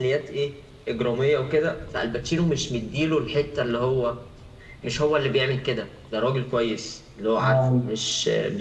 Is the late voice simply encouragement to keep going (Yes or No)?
Yes